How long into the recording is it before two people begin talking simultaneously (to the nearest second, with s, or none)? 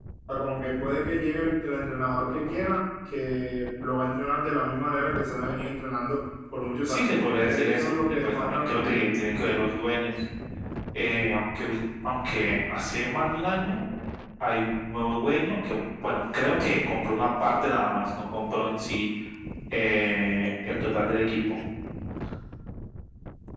7 s